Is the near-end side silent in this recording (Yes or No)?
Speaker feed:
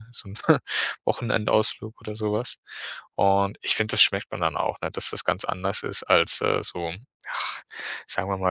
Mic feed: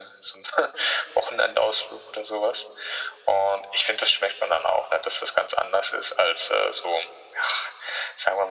Yes